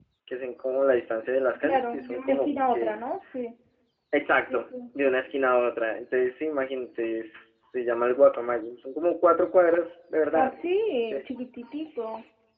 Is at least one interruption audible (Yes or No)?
Yes